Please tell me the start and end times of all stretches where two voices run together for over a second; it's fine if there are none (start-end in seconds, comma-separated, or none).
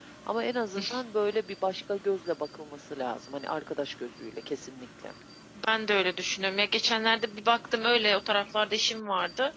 none